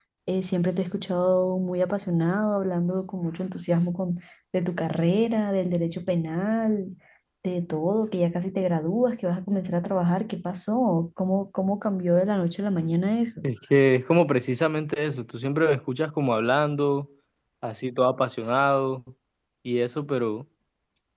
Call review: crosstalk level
none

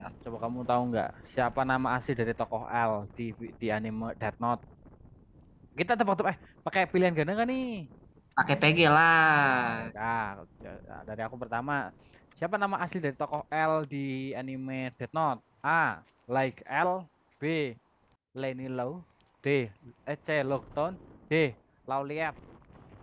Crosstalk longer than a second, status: none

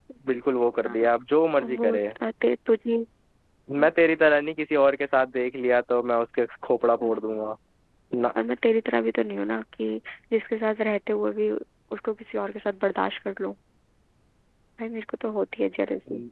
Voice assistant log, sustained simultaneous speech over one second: none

